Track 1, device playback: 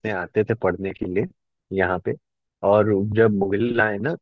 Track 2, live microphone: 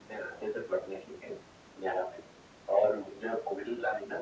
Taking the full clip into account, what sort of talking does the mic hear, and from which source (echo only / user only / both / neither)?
echo only